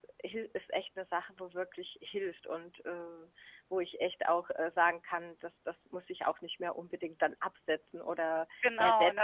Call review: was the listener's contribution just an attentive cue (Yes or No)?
No